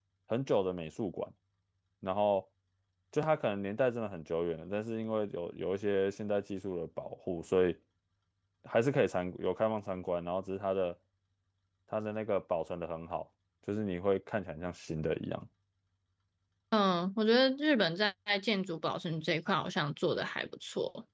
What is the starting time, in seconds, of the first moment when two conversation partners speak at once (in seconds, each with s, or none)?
none